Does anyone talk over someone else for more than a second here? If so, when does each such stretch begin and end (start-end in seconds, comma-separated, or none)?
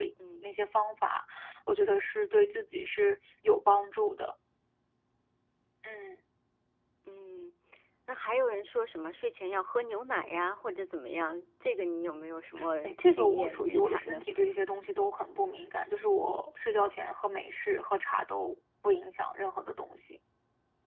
12.8-14.2